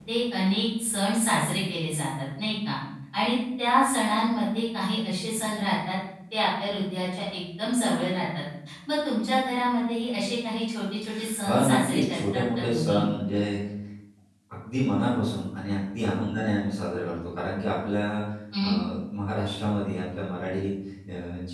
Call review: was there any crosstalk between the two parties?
Yes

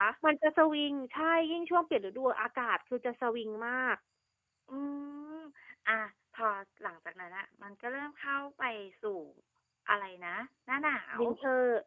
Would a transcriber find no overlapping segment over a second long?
Yes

